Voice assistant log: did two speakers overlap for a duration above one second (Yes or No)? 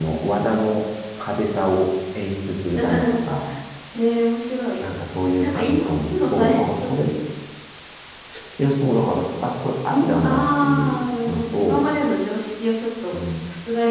Yes